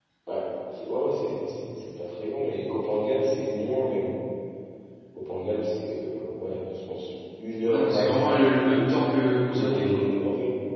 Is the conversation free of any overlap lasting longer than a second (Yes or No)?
No